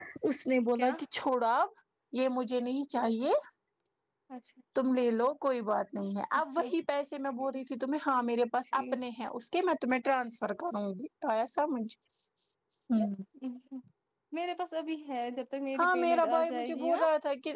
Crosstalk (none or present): present